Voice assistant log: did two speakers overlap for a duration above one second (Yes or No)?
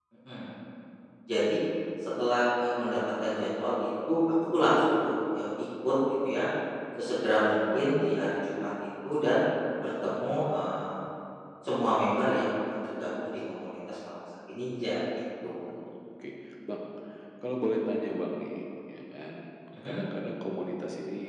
No